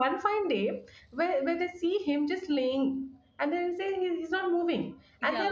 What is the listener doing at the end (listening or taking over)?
listening